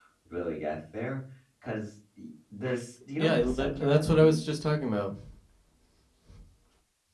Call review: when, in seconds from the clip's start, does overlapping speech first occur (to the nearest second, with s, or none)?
3 s